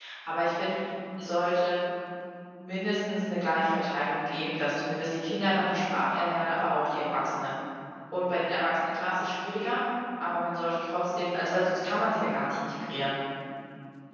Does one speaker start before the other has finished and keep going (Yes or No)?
No